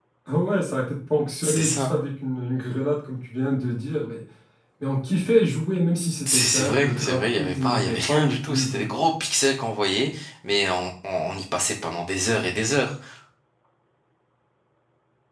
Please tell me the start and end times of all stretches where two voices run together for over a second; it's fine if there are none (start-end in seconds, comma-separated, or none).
6.3-8.8